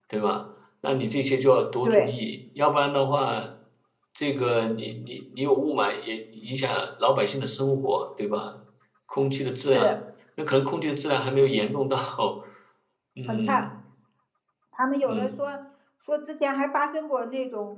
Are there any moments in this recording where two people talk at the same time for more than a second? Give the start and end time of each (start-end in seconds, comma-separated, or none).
none